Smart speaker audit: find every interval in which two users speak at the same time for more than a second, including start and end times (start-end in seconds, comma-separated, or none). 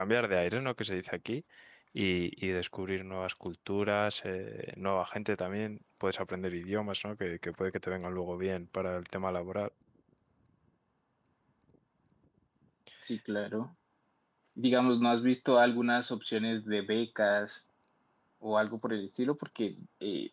none